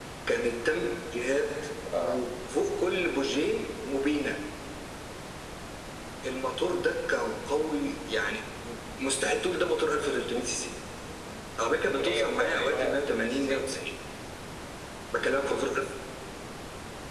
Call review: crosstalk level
present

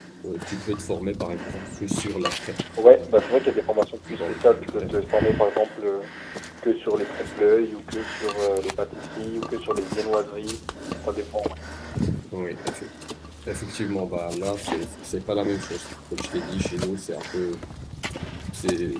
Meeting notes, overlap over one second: none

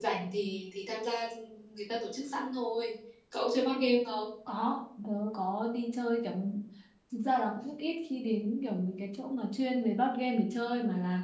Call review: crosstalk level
none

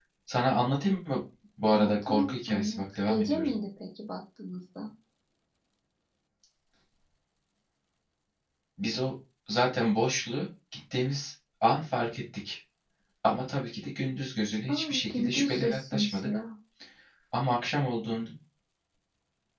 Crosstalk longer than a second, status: present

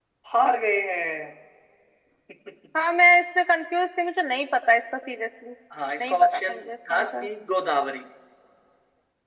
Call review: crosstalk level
present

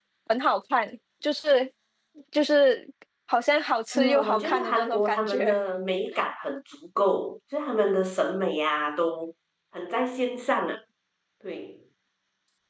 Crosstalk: present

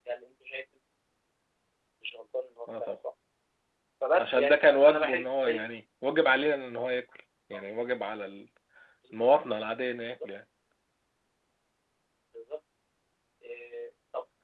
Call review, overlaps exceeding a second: present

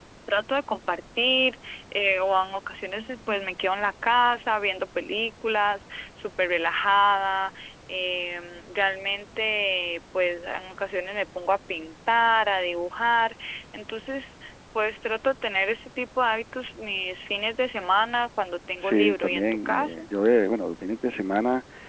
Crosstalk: present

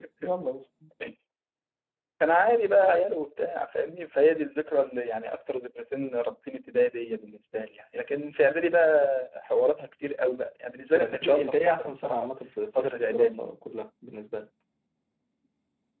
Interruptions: present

